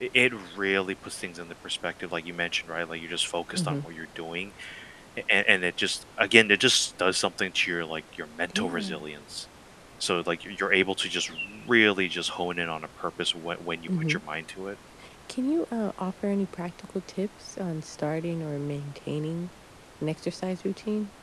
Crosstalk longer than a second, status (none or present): none